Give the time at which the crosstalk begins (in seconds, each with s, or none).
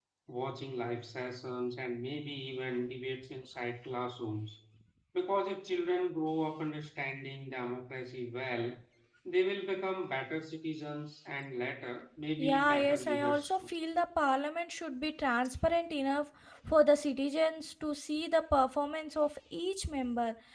12.4 s